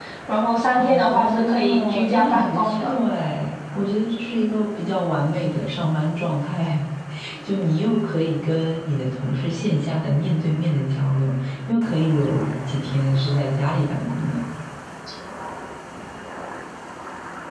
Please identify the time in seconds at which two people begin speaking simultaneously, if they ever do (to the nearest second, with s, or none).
1 s